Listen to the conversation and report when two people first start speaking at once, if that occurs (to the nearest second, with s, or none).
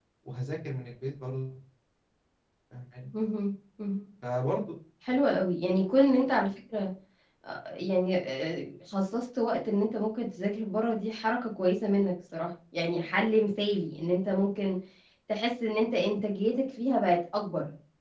none